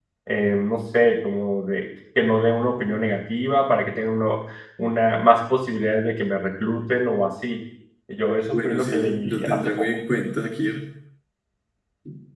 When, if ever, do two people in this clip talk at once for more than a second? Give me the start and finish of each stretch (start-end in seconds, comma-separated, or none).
8.5-9.9